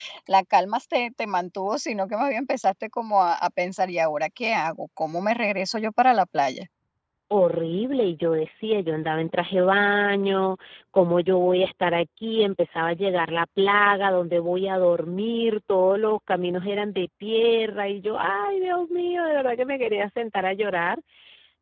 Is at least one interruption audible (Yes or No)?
No